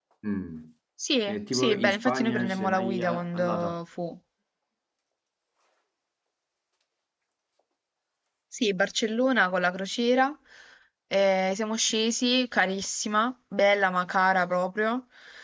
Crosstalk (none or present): present